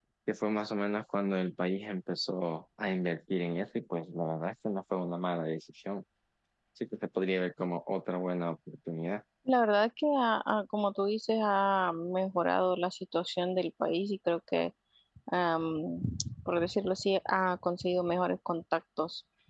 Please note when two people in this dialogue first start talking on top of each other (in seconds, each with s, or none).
none